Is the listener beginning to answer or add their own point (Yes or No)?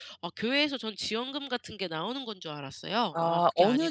Yes